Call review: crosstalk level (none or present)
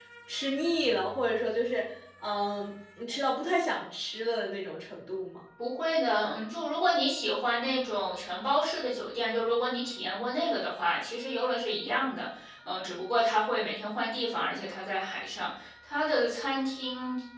none